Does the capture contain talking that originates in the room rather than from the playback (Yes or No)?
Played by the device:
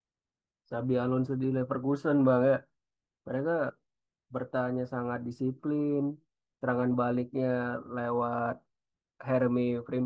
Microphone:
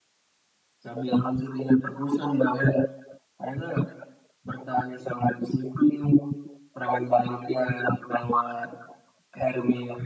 No